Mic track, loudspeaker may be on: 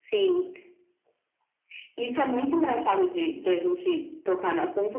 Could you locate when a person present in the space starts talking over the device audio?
none

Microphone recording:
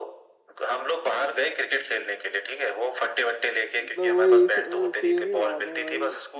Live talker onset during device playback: 3.8 s

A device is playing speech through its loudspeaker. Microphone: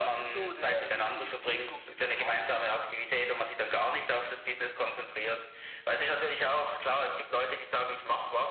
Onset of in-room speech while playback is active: none

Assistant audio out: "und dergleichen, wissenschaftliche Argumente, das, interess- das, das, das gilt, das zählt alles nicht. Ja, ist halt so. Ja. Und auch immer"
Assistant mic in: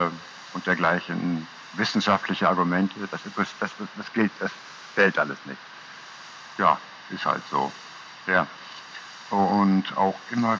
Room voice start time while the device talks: none

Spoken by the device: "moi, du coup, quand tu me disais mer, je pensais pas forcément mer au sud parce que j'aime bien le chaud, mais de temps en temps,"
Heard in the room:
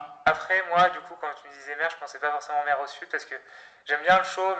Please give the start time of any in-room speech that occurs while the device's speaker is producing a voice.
none

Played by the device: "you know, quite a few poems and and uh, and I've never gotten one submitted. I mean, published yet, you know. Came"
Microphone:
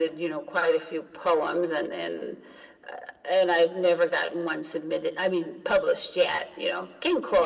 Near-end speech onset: none

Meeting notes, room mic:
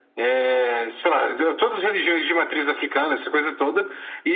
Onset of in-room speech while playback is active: none

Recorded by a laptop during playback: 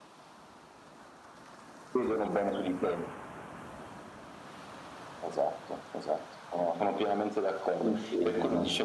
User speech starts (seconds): 7.8 s

